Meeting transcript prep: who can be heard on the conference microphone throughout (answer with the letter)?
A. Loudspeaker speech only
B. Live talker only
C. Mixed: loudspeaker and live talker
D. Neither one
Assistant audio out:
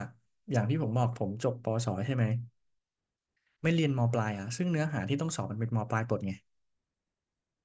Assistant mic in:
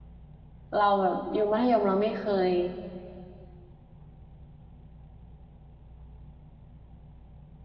B